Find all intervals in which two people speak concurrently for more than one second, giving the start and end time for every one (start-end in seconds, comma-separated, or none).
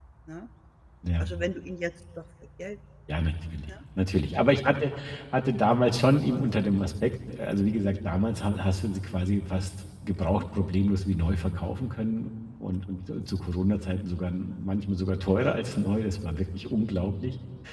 none